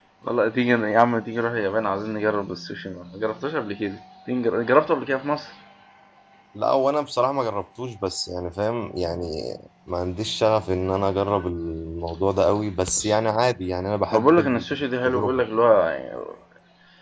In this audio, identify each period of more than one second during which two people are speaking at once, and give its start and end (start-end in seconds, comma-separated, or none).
14.1-15.4